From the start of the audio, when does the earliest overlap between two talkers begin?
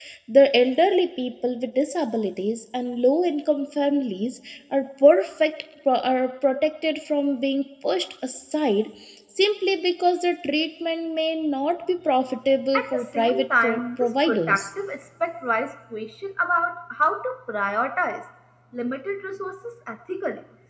12.7 s

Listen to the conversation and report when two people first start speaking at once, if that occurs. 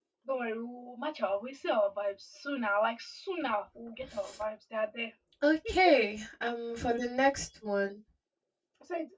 none

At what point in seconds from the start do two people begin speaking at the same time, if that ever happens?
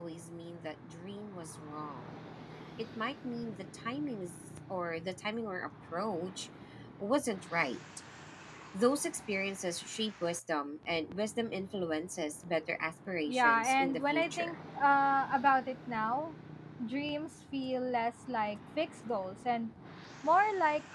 13.3 s

